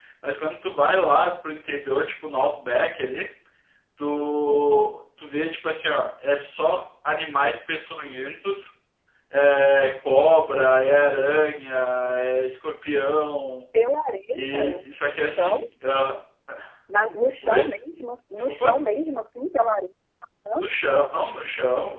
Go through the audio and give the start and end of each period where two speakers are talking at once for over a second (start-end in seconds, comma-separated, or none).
none